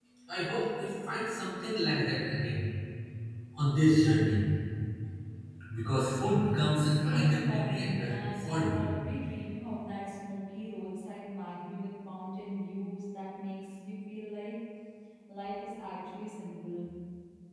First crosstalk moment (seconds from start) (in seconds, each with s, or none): 6.9 s